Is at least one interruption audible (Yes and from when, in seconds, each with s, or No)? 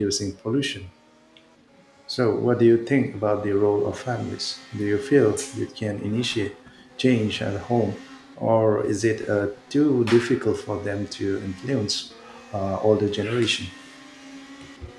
No